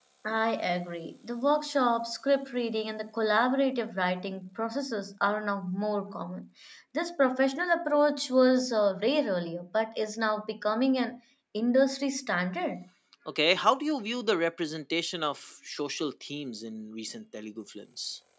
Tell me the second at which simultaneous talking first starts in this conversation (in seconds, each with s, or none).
none